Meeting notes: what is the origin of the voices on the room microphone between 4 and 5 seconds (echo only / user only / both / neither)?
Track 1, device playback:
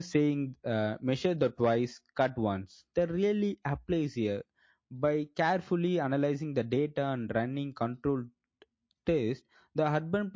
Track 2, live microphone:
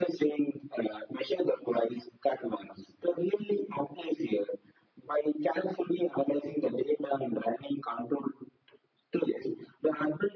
echo only